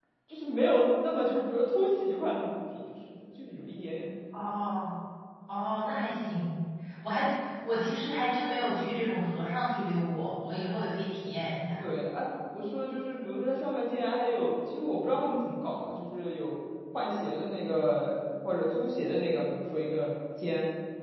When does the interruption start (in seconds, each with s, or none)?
none